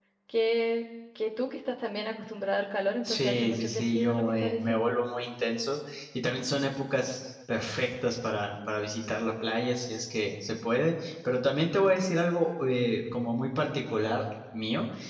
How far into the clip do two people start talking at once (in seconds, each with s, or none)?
3.0 s